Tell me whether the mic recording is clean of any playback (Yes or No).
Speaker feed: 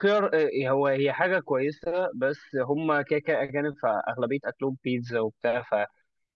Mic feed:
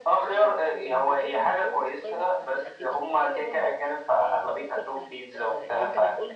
No